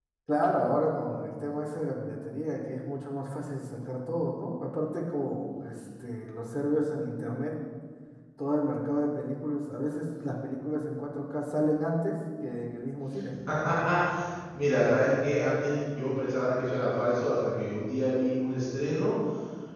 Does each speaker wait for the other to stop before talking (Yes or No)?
Yes